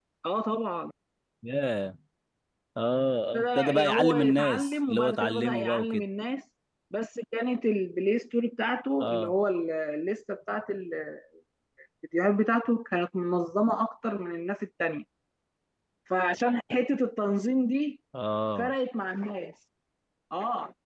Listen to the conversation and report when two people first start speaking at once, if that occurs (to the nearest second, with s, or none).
3 s